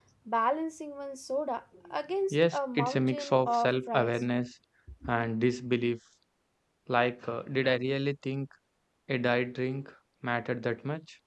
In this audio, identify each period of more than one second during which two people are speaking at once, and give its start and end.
2.3-4.2

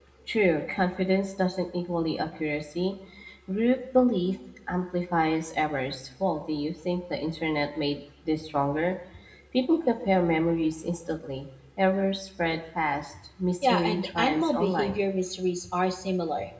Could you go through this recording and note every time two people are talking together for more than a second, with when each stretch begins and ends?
13.6-15.0

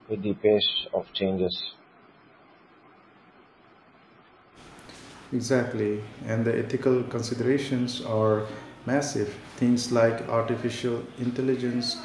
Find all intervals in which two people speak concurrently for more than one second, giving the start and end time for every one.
none

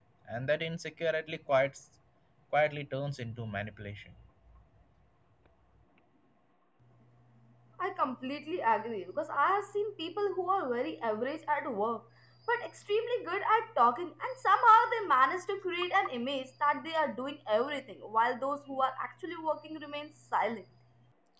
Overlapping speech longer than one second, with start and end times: none

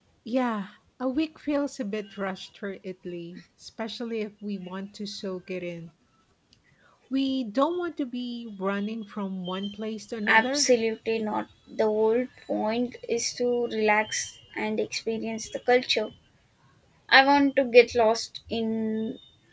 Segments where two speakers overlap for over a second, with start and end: none

